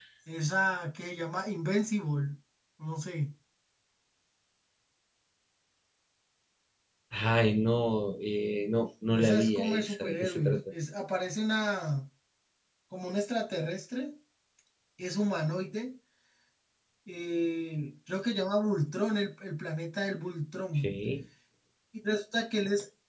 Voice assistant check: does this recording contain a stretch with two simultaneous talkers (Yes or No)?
Yes